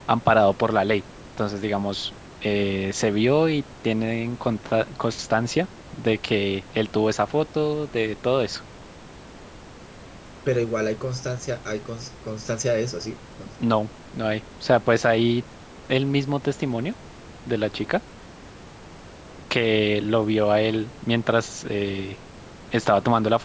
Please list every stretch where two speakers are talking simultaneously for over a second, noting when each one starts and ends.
none

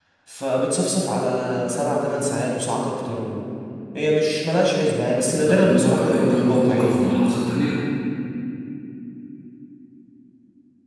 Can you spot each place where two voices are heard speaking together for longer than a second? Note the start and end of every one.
5.3-7.1

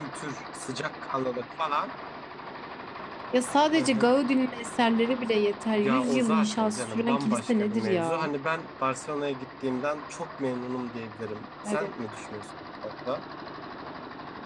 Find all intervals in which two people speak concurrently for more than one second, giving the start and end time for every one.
5.7-8.3

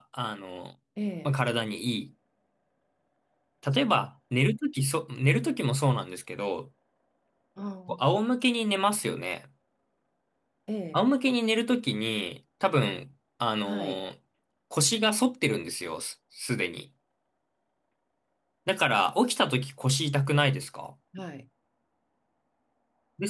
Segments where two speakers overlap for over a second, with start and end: none

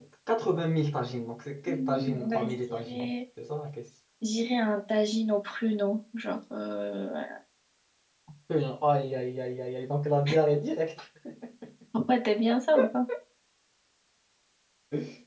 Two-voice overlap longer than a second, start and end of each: 1.7-3.1

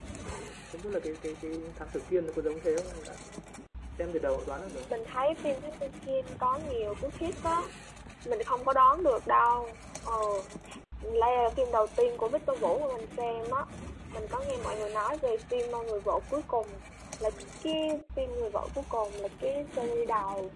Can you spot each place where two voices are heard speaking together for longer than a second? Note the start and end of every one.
none

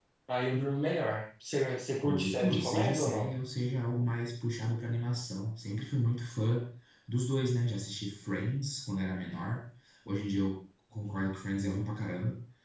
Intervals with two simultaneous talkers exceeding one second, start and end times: 1.9-3.3

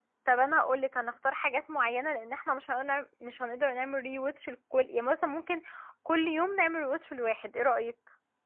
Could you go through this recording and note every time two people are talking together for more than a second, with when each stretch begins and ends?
none

